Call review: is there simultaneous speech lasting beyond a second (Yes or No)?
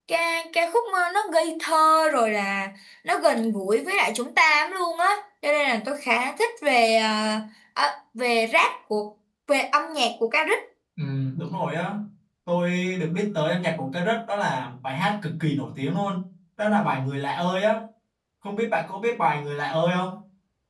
No